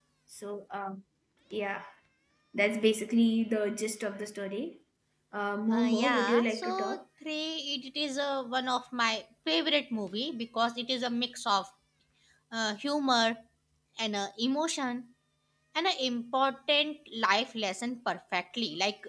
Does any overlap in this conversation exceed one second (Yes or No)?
Yes